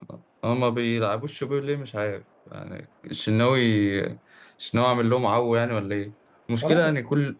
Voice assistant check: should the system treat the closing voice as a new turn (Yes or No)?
No